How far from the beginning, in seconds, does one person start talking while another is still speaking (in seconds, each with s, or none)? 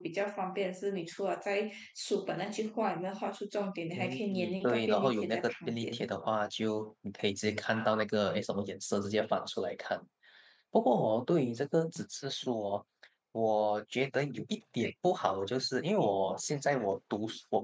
4.0 s